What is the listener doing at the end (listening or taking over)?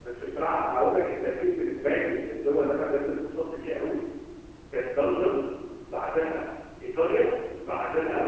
listening